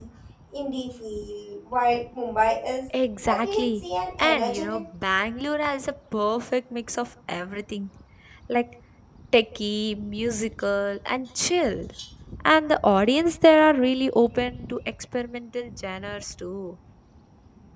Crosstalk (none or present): present